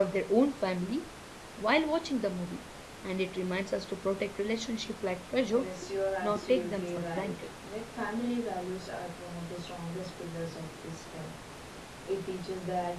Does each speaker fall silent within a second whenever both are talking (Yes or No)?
No